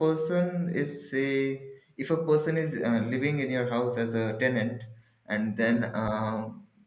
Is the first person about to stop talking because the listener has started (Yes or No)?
No